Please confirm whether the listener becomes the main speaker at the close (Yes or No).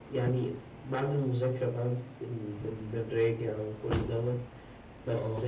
No